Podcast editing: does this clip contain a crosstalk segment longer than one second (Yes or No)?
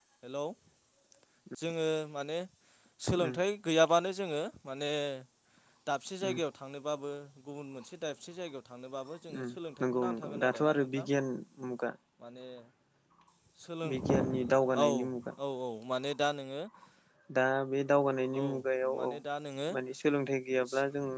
Yes